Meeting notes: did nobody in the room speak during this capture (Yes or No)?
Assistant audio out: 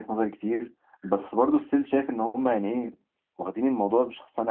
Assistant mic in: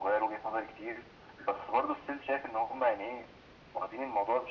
Yes